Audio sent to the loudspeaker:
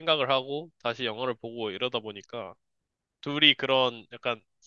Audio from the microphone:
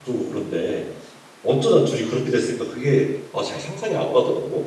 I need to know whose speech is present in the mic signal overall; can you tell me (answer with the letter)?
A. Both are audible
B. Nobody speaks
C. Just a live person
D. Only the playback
C